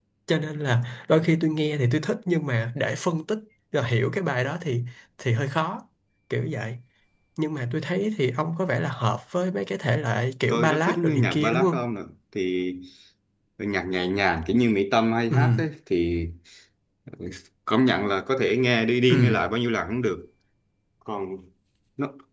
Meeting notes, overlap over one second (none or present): present